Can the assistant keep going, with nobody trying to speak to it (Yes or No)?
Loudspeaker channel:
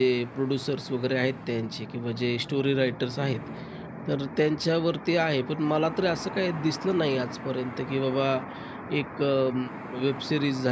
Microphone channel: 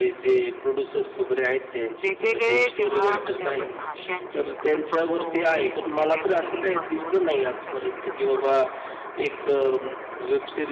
No